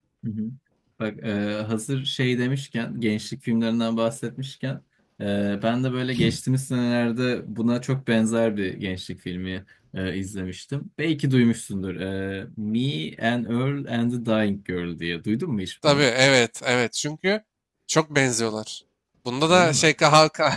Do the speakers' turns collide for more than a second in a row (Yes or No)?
No